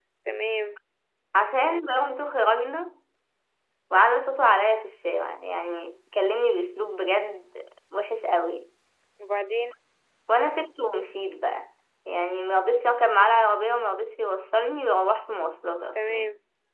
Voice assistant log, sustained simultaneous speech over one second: none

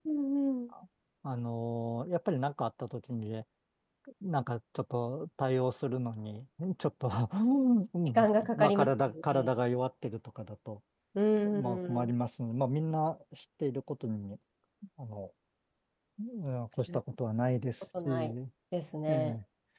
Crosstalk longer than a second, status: present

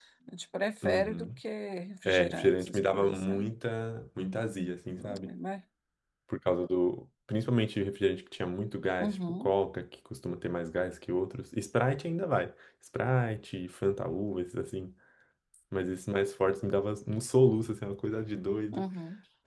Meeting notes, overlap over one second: present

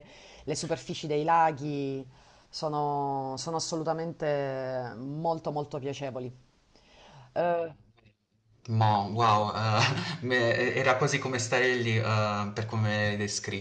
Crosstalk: none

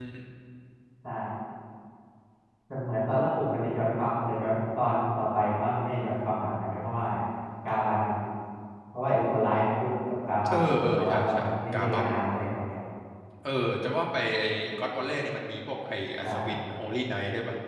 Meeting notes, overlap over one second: present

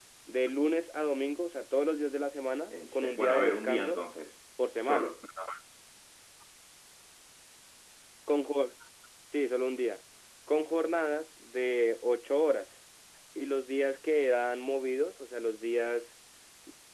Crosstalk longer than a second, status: present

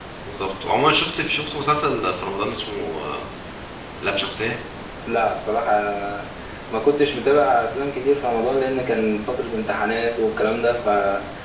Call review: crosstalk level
none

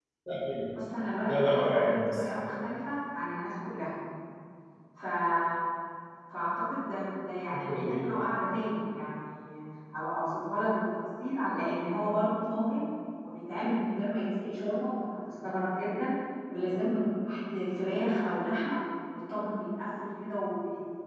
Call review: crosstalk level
present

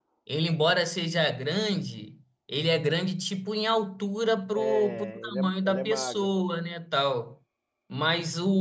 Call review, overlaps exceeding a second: present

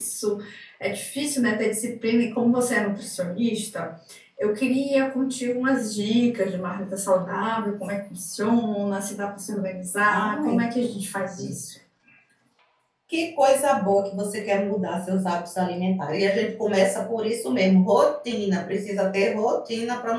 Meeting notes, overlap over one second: none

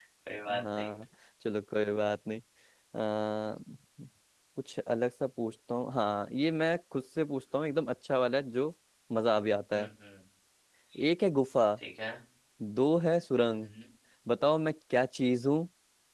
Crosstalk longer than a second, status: none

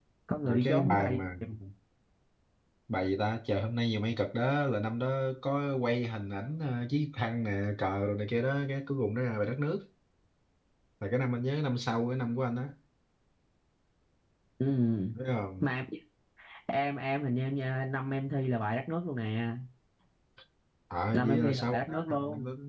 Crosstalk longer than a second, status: present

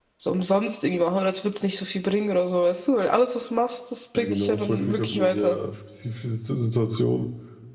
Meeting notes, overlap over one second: present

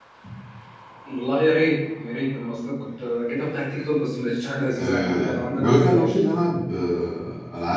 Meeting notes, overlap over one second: present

